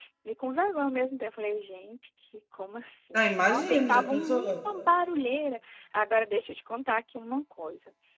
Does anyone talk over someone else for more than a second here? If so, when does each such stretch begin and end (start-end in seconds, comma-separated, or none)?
3.1-4.5